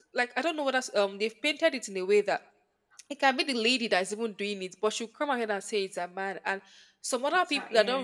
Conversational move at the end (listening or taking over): listening